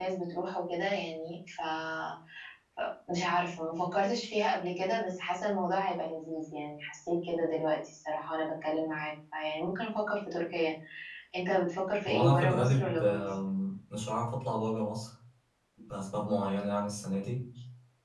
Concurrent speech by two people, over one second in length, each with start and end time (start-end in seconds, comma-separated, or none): 12.1-13.3